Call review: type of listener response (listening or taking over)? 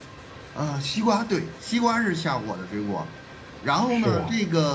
listening